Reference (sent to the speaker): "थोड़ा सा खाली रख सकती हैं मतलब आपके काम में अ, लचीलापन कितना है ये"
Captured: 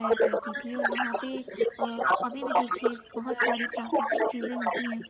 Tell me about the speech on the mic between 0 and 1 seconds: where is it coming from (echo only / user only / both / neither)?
both